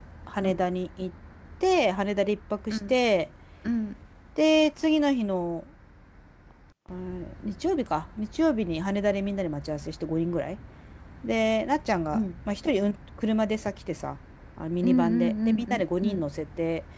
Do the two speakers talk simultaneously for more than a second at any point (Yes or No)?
Yes